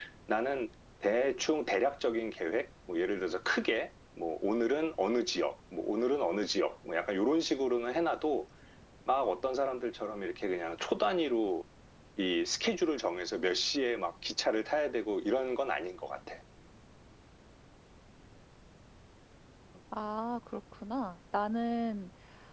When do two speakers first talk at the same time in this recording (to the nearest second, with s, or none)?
none